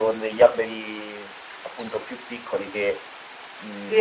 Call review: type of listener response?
taking over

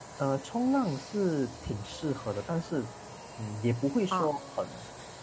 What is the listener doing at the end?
listening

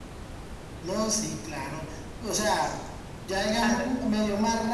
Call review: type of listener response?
listening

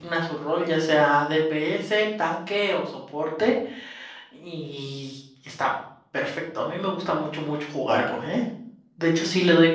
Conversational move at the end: listening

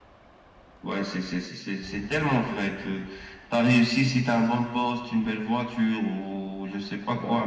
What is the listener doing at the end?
listening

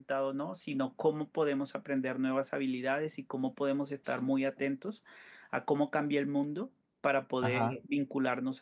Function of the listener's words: listening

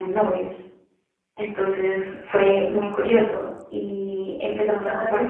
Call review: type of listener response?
listening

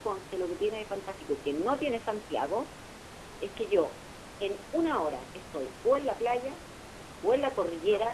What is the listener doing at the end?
listening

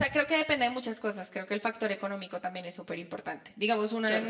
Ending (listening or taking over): listening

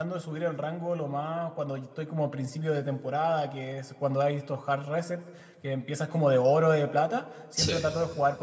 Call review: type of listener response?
listening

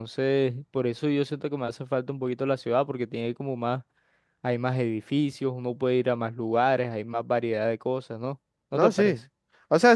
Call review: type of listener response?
taking over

